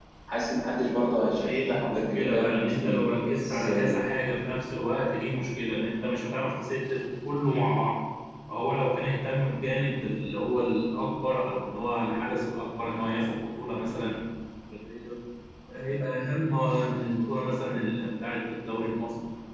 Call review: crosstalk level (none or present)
present